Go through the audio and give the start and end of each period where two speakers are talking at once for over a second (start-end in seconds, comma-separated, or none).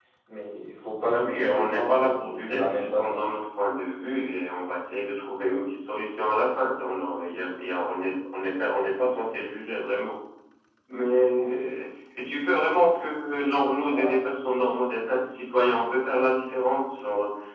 1.1-3.2